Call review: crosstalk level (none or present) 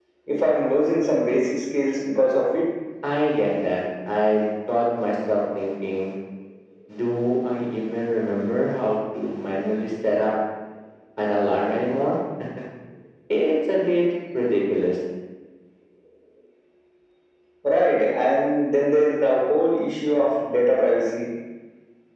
none